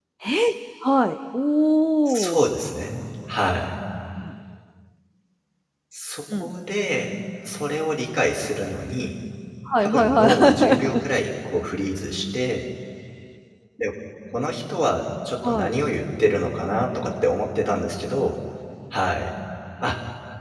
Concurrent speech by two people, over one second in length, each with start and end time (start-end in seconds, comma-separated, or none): 9.8-11.0